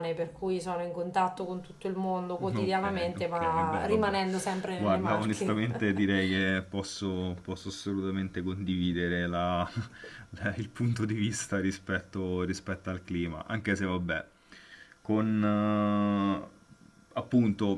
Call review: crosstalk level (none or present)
present